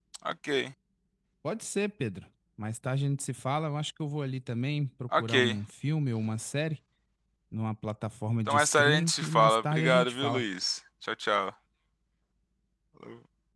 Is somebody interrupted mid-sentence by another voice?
Yes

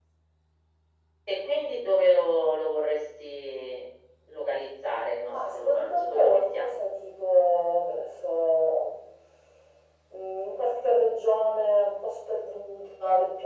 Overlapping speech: Yes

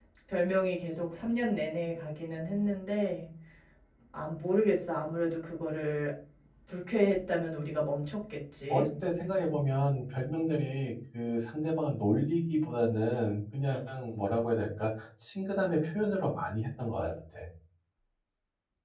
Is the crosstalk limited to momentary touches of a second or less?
Yes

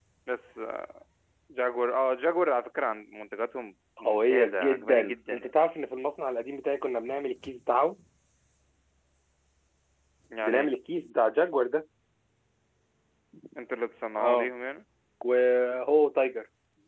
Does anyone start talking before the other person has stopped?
Yes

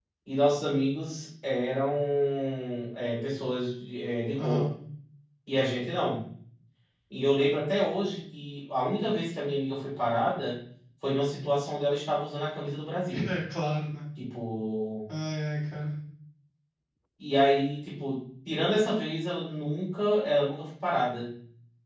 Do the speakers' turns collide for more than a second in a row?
No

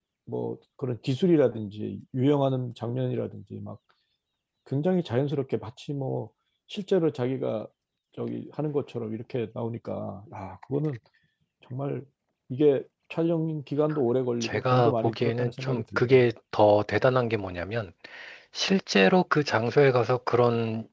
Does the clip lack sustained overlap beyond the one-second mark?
No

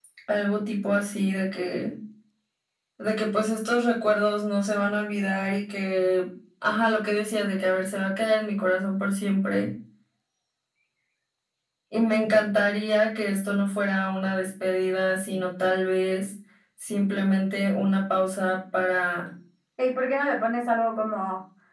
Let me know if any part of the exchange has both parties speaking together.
No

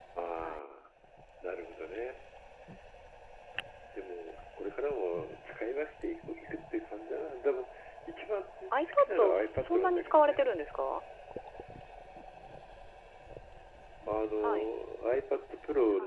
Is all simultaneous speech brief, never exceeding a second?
No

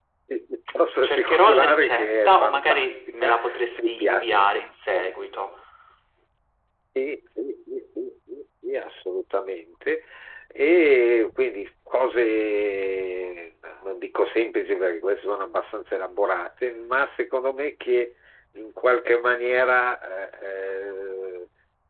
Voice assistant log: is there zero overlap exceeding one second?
No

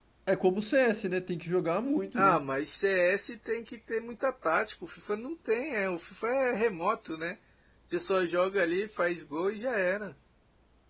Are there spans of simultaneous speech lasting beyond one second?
No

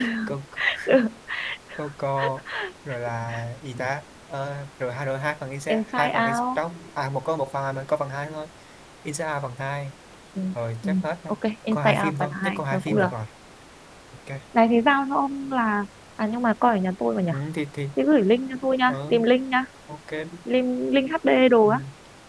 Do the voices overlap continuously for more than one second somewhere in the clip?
Yes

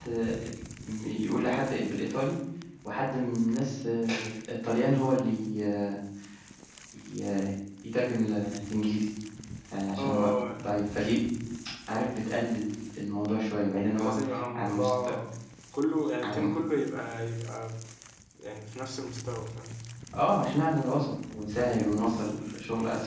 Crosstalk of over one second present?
Yes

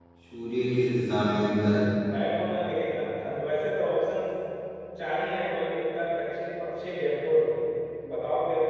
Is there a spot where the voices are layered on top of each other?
No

